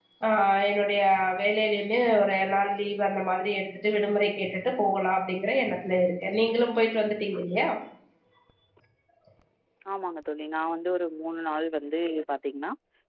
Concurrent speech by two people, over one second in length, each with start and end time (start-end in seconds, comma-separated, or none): none